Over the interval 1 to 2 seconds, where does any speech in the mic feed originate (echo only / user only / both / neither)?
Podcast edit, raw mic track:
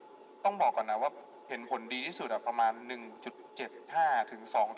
echo only